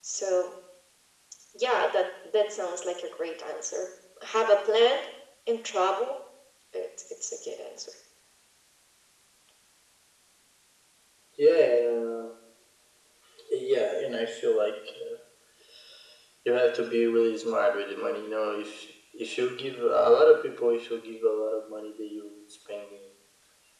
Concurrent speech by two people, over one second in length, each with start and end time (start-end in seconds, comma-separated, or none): none